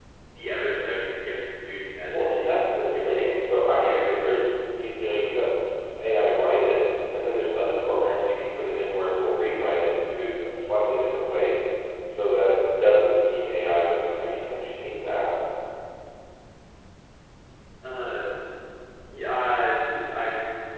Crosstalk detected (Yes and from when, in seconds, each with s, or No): Yes, from 2.1 s